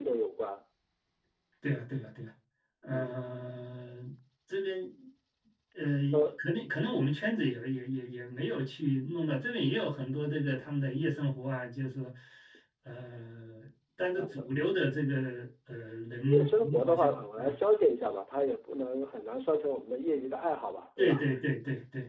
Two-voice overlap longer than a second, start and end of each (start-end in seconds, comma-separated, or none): 16.2-17.5